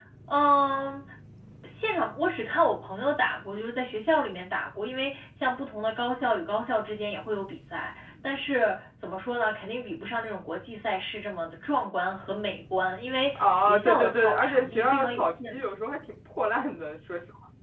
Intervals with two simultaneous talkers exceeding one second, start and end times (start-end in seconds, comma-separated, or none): 13.4-15.6